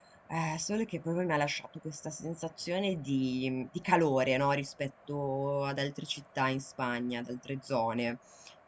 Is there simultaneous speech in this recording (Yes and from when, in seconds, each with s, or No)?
No